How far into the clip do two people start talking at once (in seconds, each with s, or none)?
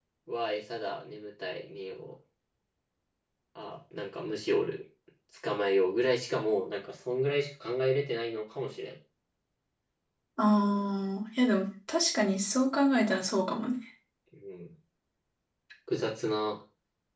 none